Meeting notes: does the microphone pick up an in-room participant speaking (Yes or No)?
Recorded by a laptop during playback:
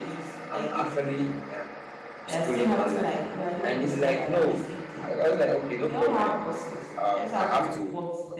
Yes